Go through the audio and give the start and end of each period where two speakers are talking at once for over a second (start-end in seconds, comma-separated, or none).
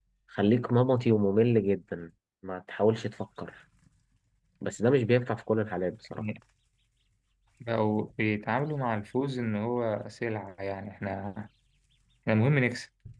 none